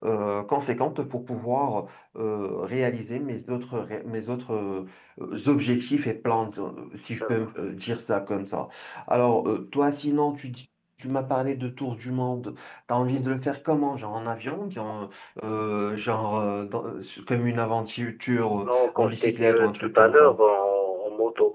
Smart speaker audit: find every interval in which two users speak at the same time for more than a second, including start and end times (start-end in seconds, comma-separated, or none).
18.6-20.4